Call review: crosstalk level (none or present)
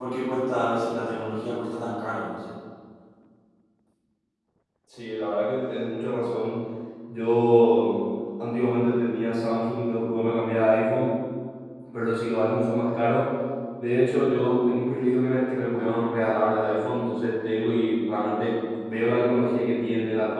none